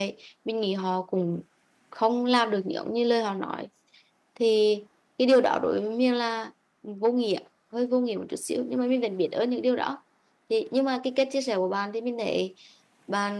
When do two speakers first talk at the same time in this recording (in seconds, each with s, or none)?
none